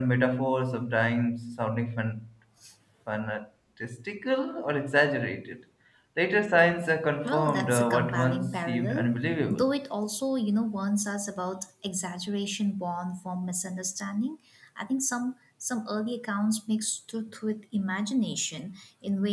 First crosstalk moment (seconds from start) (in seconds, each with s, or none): 7.2 s